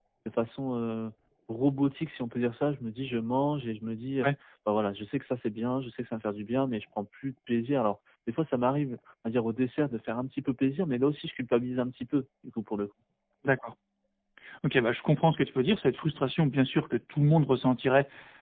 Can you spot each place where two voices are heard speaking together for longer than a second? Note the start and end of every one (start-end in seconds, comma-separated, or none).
none